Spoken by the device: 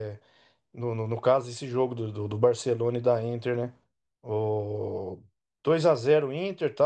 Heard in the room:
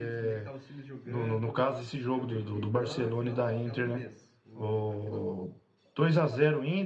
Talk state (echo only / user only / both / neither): both